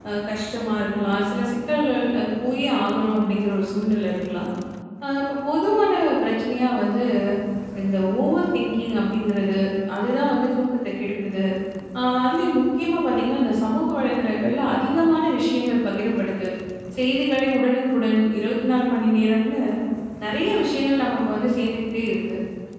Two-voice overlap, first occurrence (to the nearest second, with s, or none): none